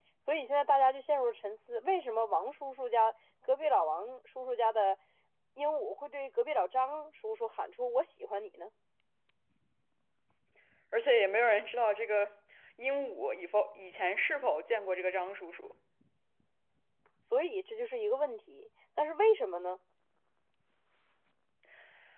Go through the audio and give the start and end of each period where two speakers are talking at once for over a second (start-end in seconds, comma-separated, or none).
none